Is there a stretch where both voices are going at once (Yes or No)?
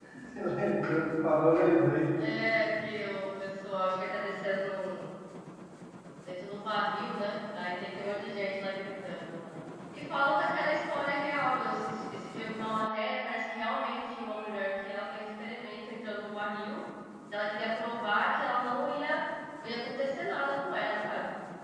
No